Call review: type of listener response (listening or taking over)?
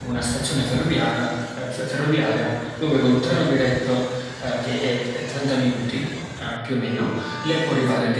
listening